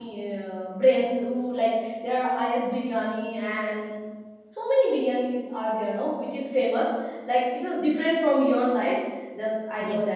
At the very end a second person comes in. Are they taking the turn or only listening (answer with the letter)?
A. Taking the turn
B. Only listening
B